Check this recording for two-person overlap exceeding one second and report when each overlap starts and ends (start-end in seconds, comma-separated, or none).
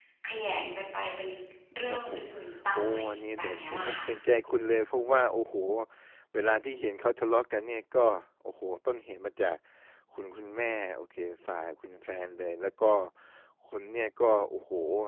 2.7-4.0